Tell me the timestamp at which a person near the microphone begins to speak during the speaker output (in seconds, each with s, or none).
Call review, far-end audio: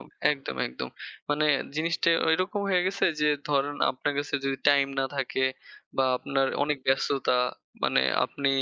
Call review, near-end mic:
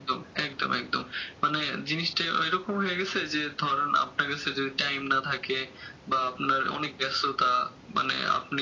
none